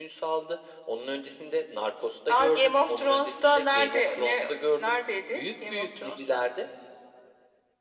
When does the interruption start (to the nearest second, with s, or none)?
2 s